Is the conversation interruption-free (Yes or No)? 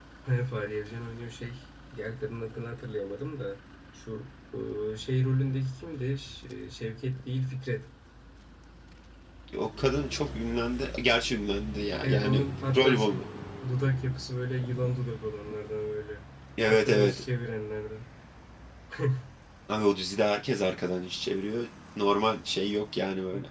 No